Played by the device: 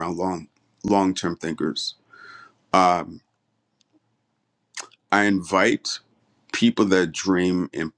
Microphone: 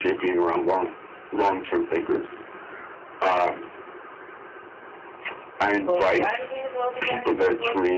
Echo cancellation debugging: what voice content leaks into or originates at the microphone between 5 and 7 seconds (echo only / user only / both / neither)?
both